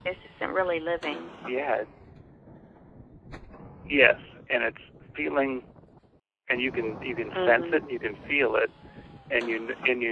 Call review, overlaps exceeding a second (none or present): none